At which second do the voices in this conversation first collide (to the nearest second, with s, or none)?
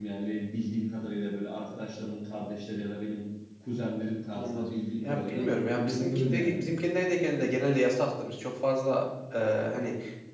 4 s